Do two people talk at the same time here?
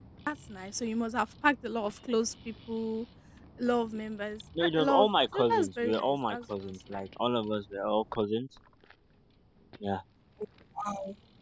Yes, from 4.6 s

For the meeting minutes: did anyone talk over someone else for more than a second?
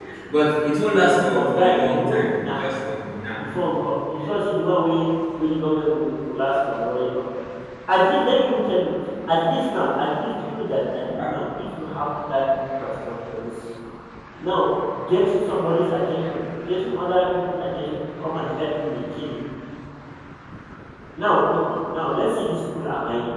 Yes, from 1.2 s

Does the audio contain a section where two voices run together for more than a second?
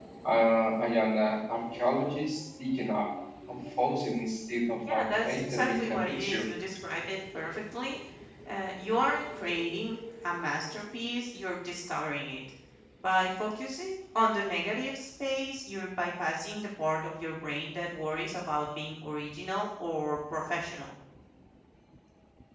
Yes, from 4.9 s

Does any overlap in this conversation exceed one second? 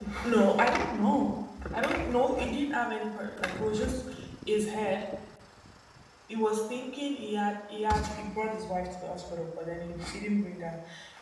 No

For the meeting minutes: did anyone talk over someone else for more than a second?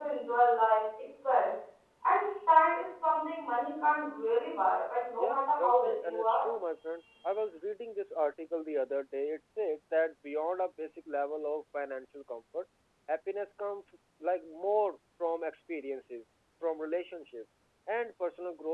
Yes, from 5.2 s

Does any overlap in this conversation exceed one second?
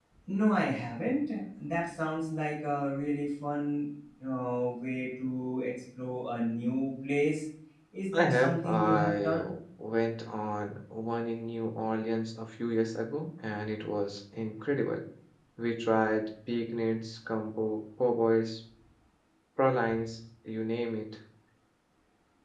Yes, from 8.1 s

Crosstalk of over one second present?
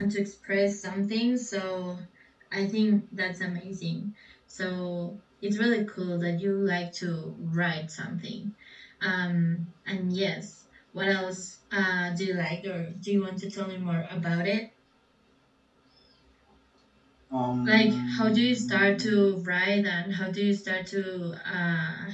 Yes, from 17.6 s

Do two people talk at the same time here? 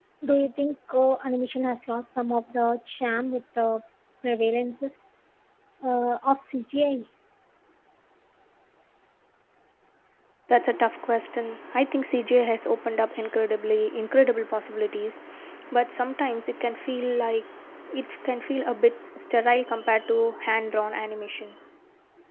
No

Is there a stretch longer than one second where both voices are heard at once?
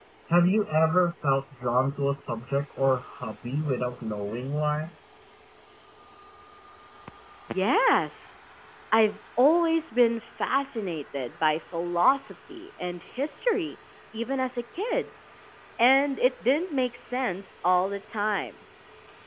No

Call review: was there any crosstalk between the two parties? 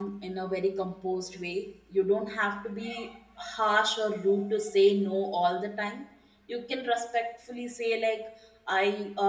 No

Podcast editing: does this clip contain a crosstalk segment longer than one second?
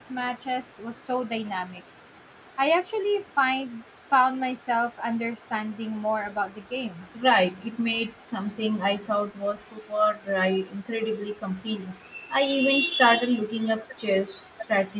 No

